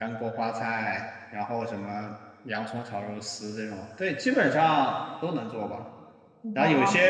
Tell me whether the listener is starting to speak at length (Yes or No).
No